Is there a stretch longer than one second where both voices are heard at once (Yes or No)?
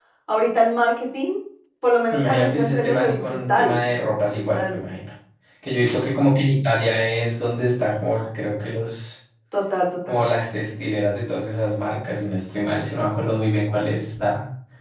Yes